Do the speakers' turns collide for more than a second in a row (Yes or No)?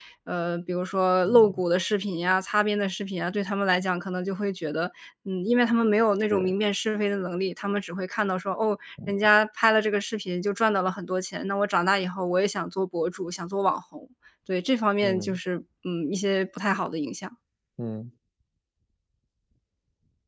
No